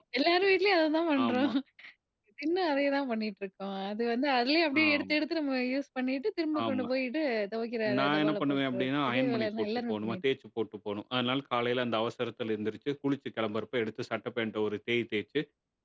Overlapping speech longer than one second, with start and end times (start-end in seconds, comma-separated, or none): 8.0-10.2